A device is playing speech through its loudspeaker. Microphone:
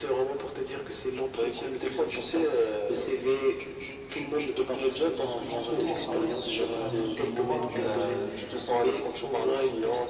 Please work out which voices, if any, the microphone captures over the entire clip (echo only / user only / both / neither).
both